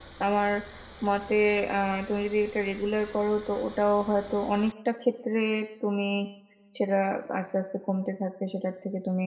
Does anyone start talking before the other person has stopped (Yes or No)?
No